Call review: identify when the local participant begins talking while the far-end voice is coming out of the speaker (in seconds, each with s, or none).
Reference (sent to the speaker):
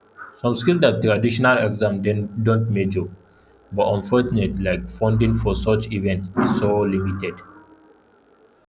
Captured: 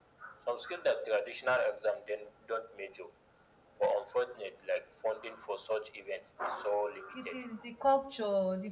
7.1 s